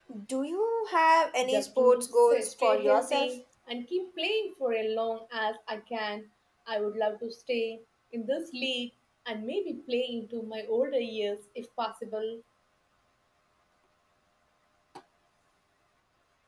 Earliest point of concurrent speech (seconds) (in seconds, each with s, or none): 1.4 s